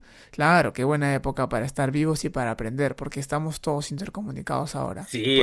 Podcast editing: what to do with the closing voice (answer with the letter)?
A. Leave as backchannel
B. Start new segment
B